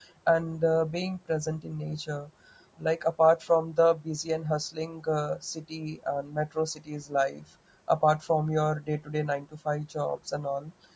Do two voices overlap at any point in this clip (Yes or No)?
No